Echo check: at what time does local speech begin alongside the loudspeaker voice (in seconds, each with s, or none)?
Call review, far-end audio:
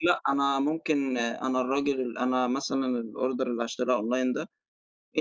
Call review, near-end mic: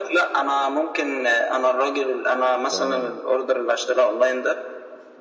2.7 s